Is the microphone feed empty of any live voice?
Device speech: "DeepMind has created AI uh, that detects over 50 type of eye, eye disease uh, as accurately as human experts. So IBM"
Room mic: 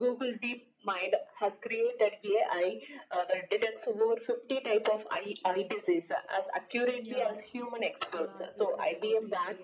No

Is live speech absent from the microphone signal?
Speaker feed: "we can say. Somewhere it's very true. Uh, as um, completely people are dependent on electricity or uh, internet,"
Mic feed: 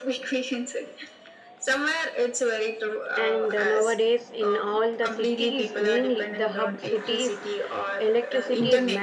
No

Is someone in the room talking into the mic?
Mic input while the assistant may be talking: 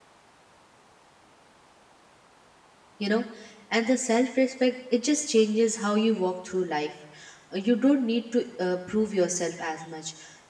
Yes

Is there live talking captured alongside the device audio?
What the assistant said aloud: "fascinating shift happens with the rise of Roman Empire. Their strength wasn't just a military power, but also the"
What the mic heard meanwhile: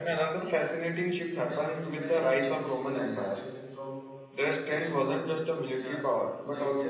Yes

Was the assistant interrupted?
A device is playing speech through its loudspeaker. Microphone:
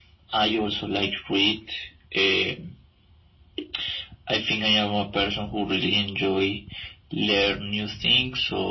No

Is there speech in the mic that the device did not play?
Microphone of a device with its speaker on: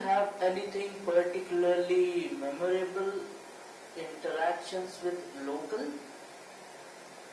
No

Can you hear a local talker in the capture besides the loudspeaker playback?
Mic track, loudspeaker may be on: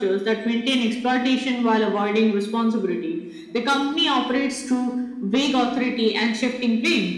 No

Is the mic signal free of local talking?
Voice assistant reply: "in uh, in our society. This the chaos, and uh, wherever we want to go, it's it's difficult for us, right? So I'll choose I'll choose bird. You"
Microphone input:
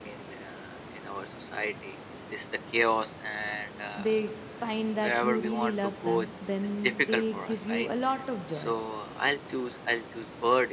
No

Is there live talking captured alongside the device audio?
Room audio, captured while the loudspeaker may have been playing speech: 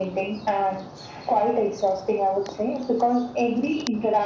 No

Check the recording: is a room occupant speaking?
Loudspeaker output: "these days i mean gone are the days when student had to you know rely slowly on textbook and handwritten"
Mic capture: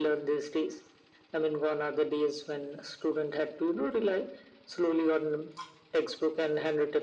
No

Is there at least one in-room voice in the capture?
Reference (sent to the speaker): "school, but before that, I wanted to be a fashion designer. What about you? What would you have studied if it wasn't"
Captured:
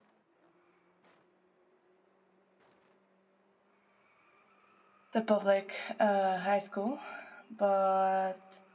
Yes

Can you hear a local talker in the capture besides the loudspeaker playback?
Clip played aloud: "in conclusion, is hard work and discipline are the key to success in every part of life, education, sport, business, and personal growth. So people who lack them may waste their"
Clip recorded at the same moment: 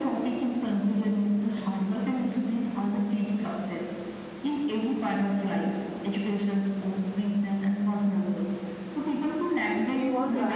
Yes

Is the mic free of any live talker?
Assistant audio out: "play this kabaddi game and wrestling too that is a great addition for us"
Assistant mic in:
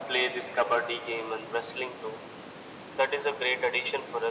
Yes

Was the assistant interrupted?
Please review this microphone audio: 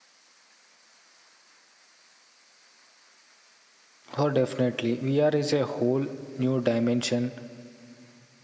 Yes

